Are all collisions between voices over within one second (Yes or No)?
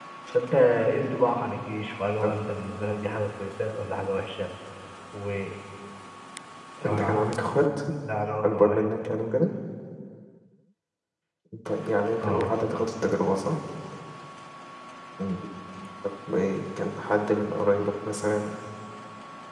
Yes